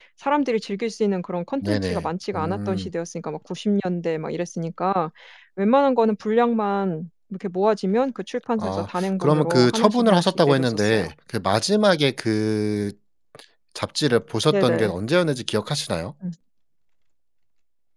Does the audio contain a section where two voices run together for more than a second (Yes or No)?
Yes